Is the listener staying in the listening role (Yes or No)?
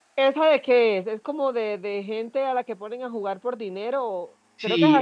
No